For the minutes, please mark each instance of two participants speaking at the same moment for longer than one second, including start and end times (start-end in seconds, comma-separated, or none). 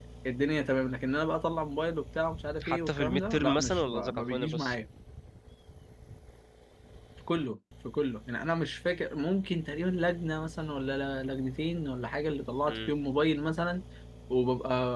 2.6-4.8